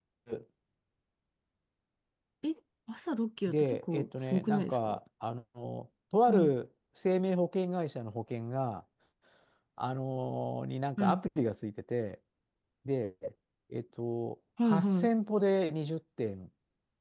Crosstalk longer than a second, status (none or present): present